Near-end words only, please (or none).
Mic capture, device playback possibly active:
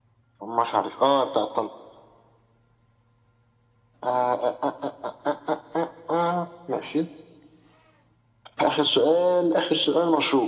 none